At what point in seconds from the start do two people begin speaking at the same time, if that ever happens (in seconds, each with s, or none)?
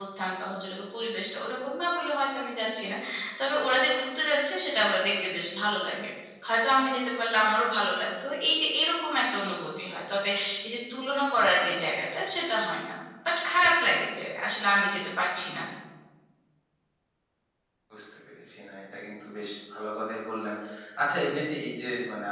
none